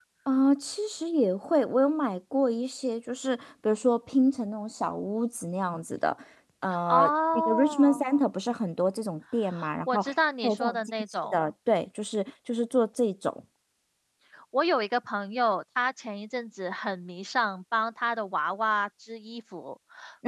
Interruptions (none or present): present